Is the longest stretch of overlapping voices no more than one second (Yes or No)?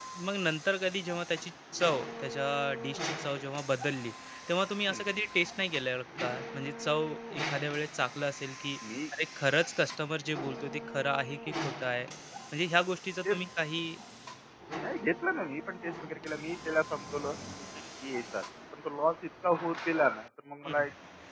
Yes